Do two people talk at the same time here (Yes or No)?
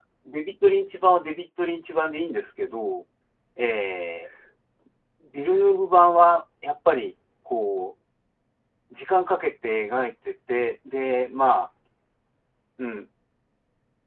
No